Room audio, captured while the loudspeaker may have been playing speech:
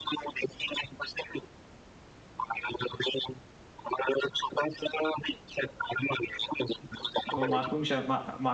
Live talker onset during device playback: 7.3 s

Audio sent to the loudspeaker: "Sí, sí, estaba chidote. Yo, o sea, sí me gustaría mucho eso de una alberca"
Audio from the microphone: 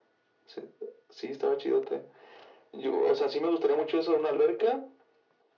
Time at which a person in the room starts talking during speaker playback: none

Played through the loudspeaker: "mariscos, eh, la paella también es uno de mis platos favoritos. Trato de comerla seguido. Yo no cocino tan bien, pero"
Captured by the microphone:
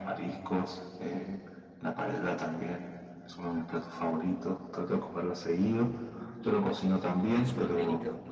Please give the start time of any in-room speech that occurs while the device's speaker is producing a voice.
7.3 s

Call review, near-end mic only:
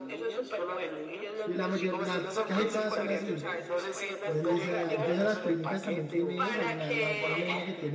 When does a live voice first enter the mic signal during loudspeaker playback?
1.4 s

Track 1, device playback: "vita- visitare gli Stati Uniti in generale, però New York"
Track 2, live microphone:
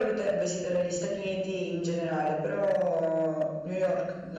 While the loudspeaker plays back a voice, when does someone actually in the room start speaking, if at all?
none

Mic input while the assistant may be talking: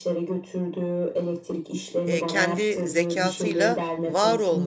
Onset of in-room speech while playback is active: 2.1 s

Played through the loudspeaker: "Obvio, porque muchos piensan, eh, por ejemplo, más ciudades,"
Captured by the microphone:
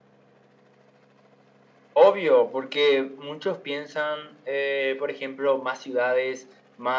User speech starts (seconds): none

